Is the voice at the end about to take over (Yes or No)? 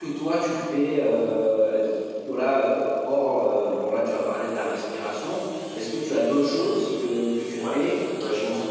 Yes